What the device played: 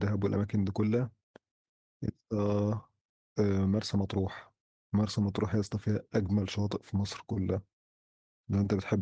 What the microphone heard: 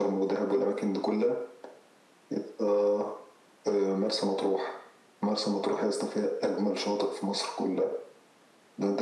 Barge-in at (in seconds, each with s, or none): none